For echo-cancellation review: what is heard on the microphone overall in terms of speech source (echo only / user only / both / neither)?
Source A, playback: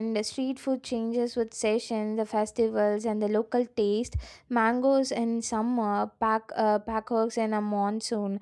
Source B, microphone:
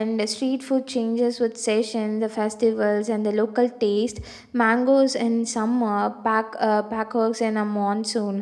echo only